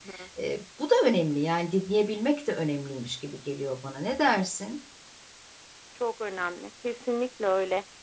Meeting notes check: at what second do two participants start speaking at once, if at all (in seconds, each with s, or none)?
none